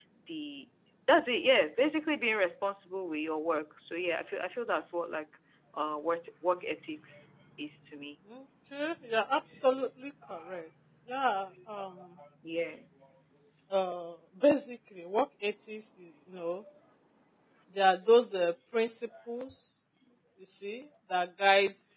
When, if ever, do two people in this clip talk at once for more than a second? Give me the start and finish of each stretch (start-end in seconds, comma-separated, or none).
none